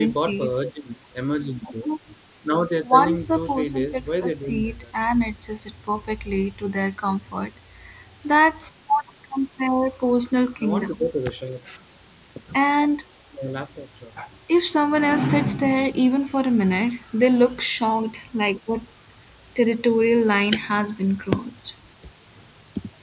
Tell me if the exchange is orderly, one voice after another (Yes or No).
No